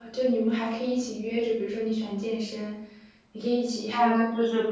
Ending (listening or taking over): taking over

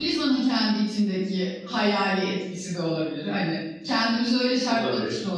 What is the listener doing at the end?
listening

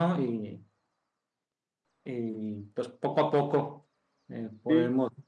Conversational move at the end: listening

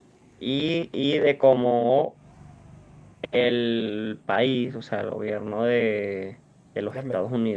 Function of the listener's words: listening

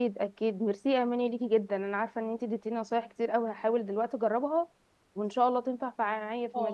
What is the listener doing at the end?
taking over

